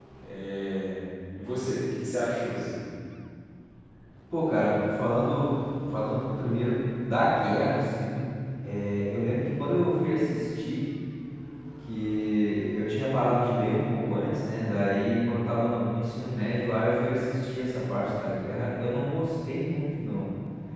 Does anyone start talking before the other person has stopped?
No

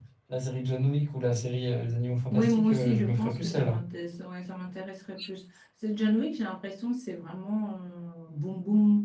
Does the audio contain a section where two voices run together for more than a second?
Yes, from 2.3 s

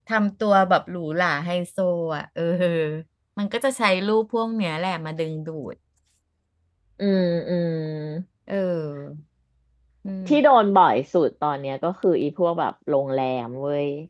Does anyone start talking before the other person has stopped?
No

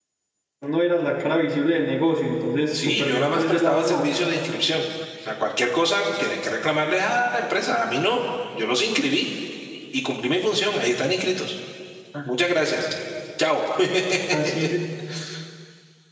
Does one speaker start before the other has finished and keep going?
Yes, from 2.7 s

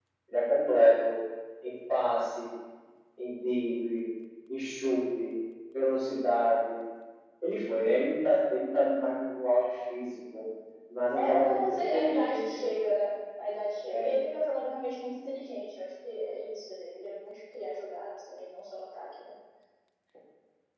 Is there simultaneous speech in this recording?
Yes, from 11.1 s

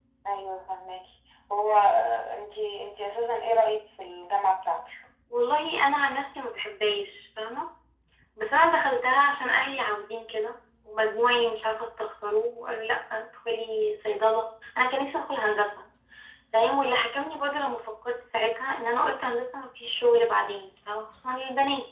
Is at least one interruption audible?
No

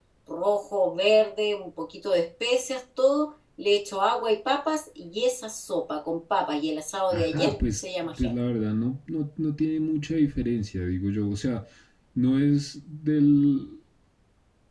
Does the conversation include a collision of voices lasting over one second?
Yes, from 7.1 s

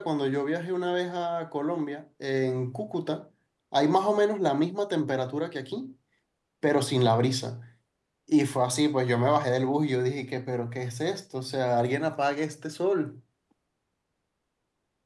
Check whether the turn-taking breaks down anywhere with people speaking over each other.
No

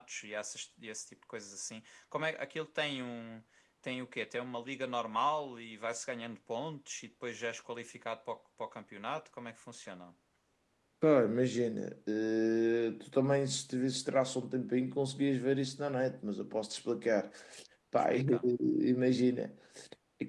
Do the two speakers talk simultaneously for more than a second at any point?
No

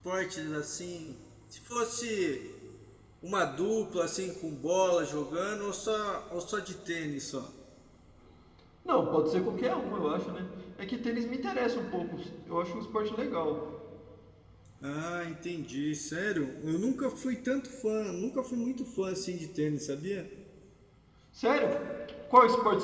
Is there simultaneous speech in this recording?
No

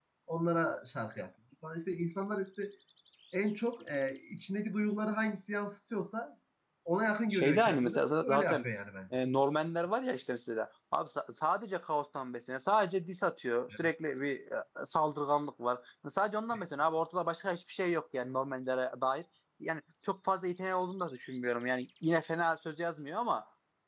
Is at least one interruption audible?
Yes, from 7.3 s

